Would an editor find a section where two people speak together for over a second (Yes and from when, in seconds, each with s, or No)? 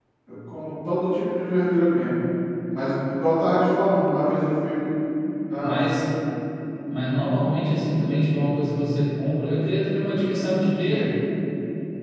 No